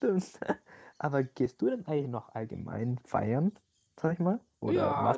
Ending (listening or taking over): taking over